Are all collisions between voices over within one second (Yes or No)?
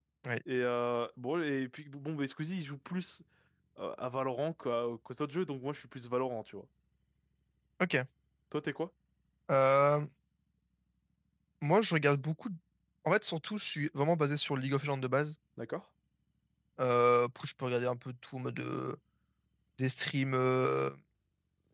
Yes